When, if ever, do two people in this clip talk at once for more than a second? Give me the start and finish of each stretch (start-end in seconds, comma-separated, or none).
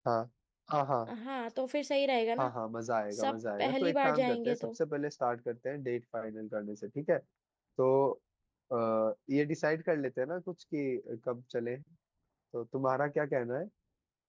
3.2-4.6